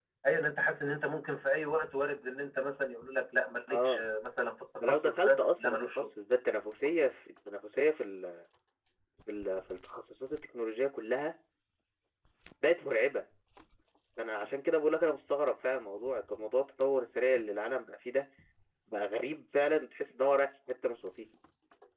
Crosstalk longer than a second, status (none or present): present